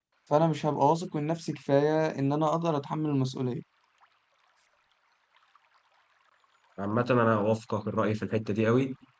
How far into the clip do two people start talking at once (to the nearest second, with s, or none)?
none